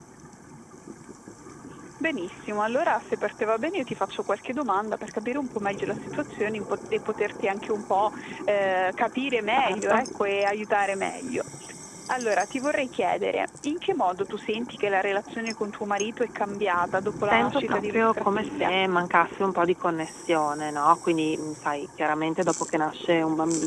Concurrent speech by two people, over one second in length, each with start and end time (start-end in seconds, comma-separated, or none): 17.2-18.7